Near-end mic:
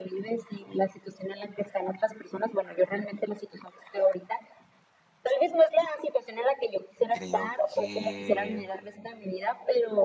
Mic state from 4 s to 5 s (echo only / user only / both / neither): echo only